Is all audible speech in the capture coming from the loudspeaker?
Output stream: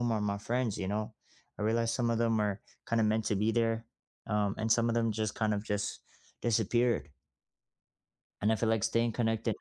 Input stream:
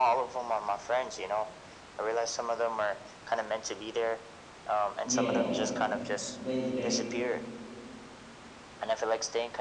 No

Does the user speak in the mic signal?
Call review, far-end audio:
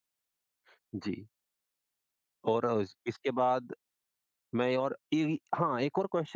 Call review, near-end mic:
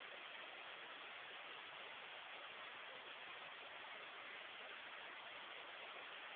No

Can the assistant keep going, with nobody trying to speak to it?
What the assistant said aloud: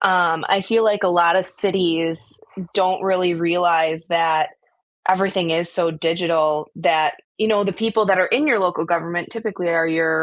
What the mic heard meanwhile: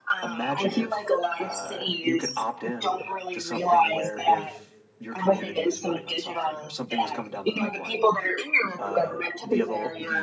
No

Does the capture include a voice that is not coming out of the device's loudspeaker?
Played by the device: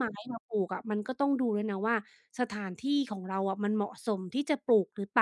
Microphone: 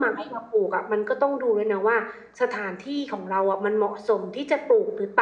No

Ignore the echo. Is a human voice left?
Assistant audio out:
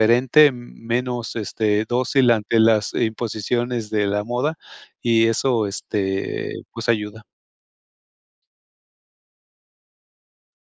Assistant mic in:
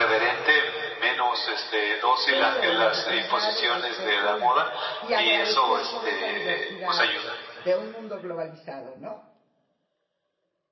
Yes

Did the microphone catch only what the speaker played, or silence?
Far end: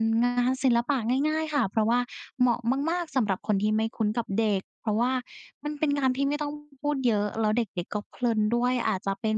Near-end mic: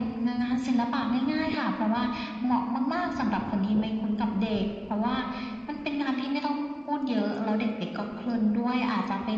Yes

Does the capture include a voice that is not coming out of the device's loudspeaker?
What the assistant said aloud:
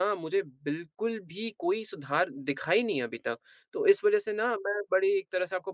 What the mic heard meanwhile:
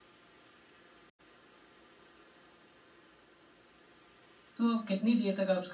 Yes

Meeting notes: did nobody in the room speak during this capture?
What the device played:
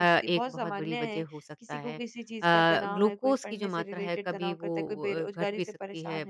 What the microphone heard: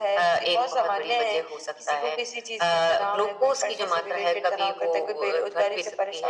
Yes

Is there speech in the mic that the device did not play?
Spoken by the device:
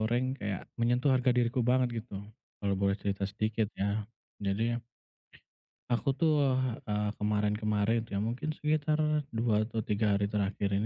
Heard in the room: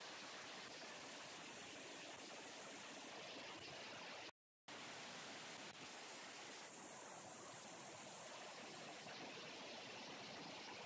No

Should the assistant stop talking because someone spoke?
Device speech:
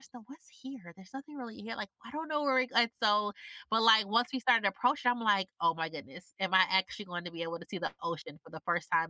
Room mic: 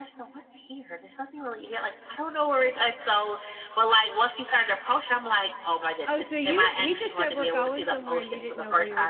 Yes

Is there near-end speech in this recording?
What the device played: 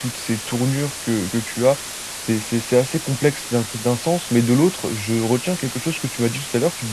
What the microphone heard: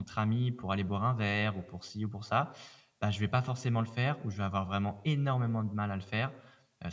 Yes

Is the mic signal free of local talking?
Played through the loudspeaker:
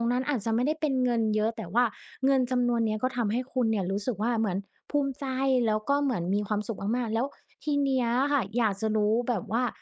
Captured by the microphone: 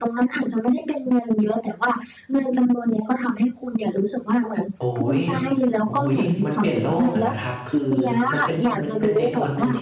No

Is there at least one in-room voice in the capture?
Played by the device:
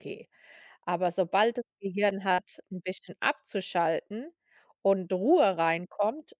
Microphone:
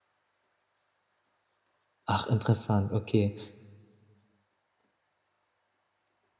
Yes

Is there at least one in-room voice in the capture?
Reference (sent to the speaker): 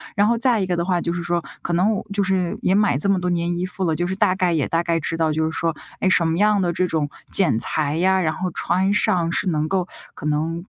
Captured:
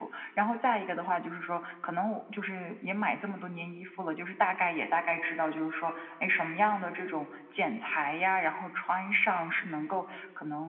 No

